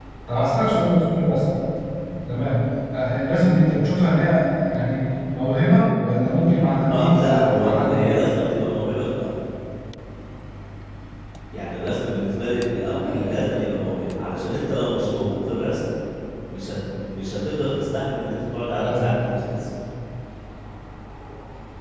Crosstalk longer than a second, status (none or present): present